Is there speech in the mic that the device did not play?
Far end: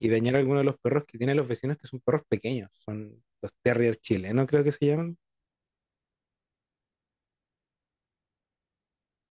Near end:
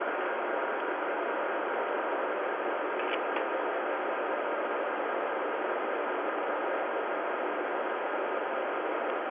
No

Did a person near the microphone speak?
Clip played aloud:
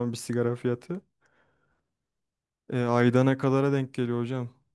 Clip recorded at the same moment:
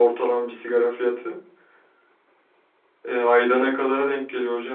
No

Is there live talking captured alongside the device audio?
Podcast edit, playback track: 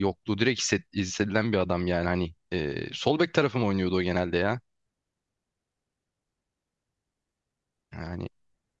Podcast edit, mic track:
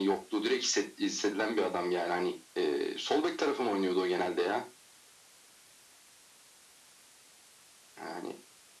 No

